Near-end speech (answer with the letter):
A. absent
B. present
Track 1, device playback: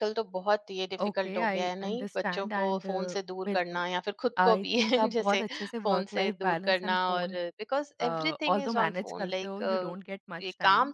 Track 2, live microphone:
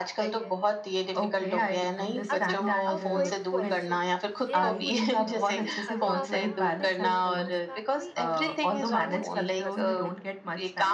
B